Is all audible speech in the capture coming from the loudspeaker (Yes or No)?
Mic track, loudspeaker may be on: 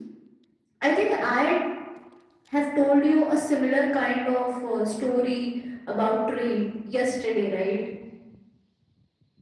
Yes